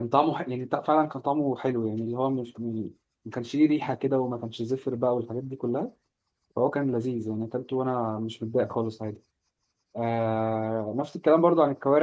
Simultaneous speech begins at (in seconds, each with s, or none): none